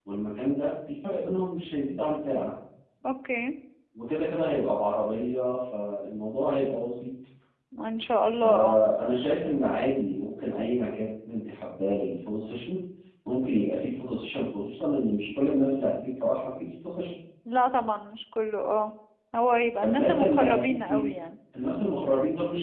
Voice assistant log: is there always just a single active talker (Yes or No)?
No